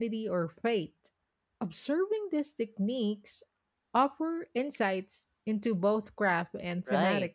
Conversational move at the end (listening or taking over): taking over